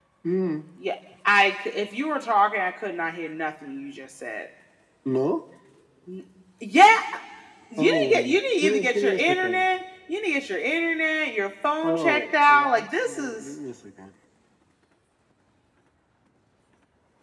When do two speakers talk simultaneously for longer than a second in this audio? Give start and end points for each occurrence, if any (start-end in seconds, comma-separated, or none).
7.8-9.6, 11.8-13.6